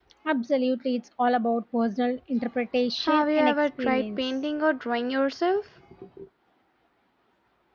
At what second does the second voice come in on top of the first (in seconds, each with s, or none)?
3.1 s